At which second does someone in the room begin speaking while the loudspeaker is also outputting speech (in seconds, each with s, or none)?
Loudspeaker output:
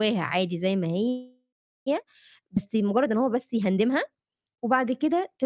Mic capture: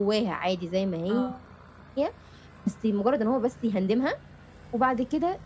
1.1 s